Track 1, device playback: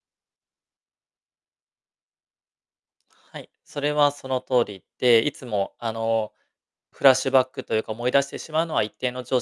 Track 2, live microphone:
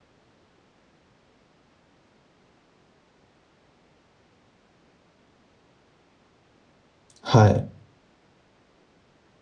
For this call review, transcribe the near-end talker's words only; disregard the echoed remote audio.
はい。

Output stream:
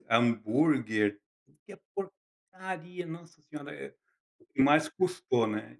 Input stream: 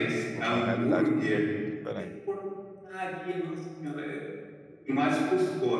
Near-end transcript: Uma realidade completamente diferente.

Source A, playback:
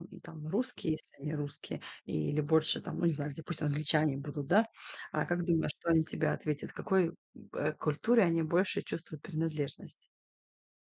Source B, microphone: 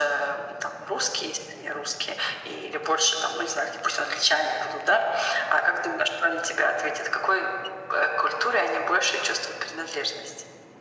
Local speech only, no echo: none

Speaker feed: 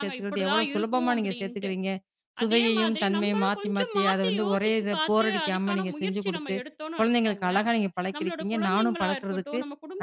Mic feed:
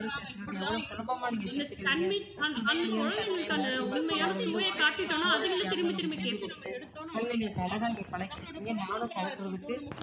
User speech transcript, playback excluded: அந்த தன்மை அந் அந்த குழந்தைங்களுக்கு அந்த உண்மையான சுவைய காட்டிட்டோன்னா, அதுங்களே திரும்பி, திரும்பி கேட்கும்.

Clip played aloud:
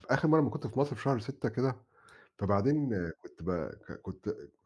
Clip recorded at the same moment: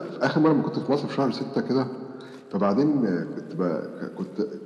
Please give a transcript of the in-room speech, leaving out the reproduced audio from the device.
none

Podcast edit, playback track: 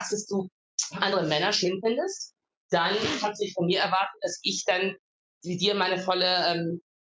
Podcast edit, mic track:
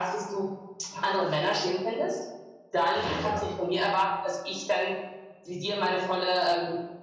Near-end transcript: Ja, ja.

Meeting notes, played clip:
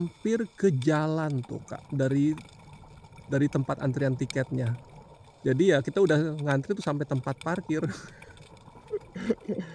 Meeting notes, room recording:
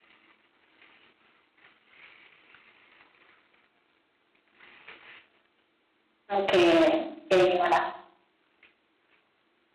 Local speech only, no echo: Oke, kayak gimana?

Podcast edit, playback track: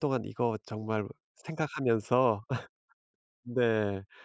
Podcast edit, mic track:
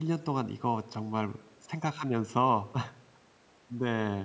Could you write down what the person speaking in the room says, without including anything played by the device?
none

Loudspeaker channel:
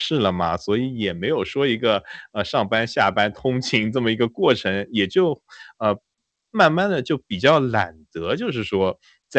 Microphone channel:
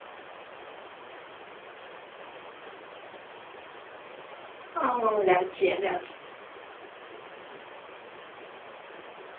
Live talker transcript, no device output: 哦，了解了解。

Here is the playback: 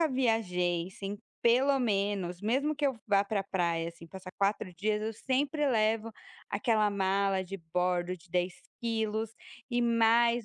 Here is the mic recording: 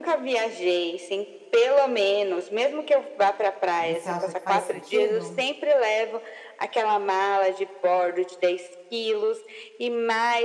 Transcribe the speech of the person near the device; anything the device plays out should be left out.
Você acha que faz sentido?

